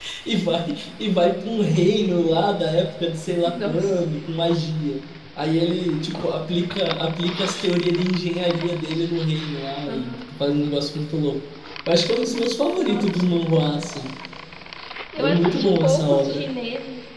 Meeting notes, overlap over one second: present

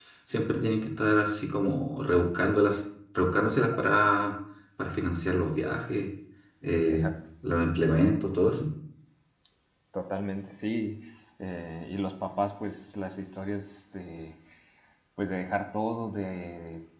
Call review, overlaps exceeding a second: none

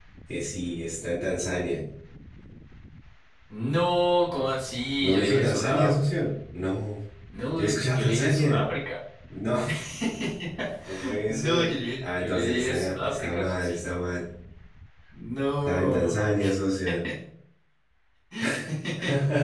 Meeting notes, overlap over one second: present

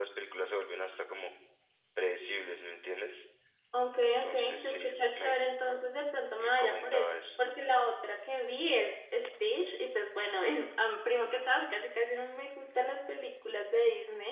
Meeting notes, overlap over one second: present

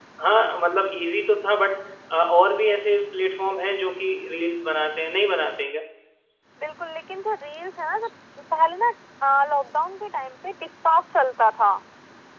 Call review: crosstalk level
none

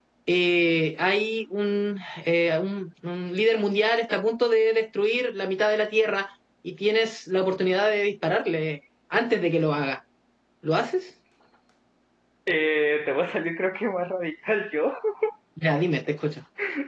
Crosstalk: none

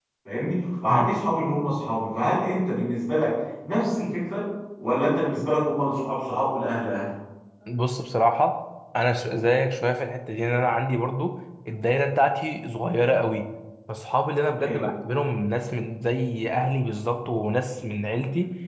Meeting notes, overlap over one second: none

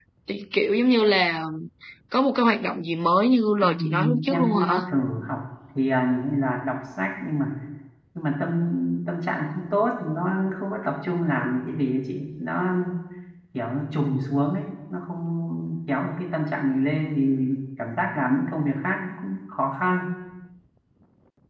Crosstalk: present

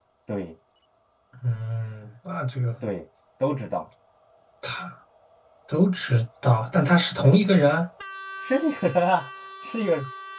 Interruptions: none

